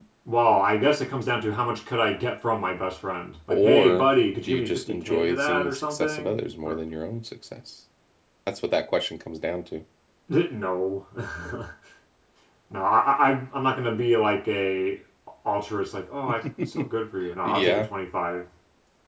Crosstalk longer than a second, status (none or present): present